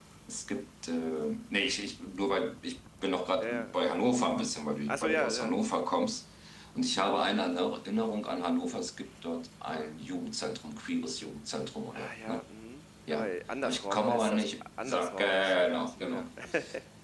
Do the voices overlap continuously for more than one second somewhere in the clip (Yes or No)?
Yes